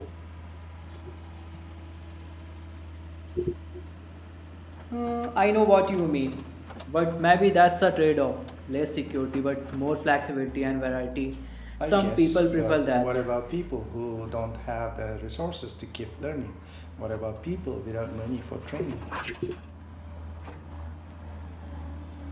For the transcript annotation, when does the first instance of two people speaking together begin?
12 s

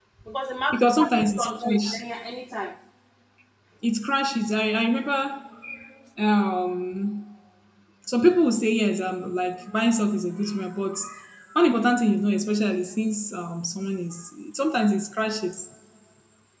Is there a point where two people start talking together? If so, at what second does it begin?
1 s

